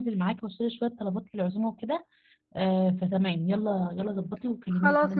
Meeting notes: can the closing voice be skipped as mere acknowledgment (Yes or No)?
No